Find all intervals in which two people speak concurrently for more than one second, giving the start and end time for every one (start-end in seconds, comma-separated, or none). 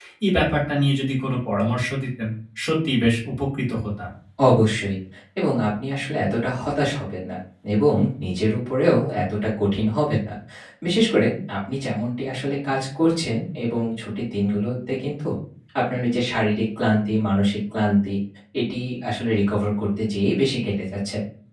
none